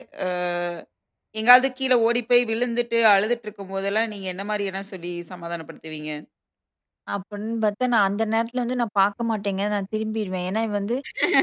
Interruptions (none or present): none